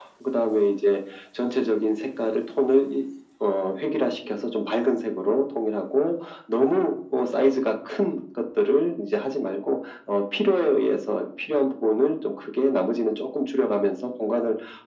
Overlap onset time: none

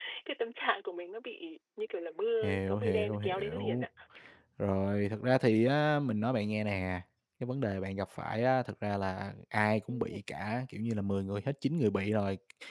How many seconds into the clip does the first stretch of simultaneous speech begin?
2.4 s

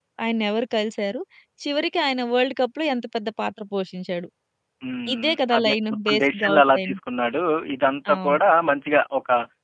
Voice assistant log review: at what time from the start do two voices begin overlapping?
5.1 s

